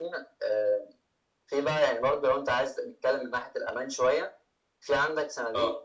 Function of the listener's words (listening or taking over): listening